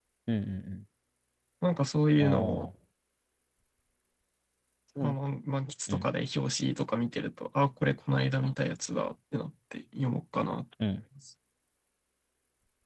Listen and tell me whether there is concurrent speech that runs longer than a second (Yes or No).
No